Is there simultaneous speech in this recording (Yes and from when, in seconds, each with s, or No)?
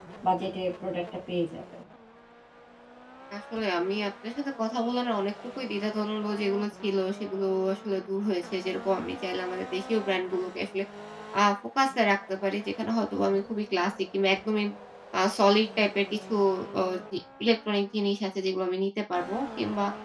No